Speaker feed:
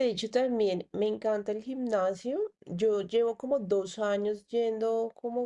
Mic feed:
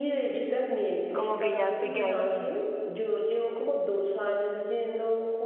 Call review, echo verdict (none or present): present